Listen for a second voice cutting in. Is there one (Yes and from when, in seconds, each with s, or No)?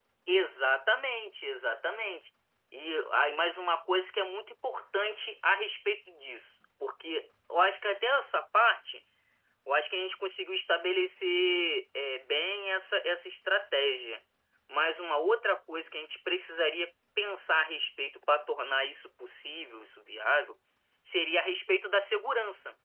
No